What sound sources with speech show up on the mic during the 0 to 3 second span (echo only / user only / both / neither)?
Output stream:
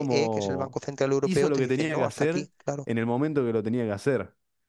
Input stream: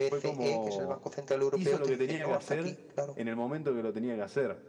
echo only